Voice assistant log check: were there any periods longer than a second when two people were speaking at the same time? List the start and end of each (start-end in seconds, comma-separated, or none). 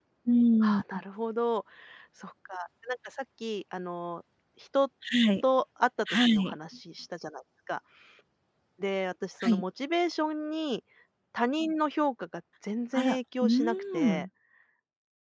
12.9-14.2